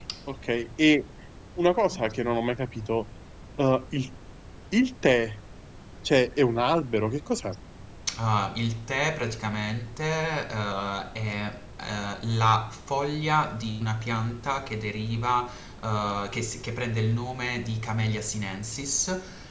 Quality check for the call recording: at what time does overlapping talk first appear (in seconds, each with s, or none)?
none